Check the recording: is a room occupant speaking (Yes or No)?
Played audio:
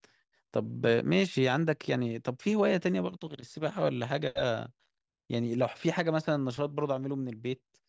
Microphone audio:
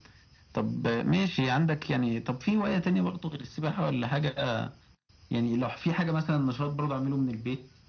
No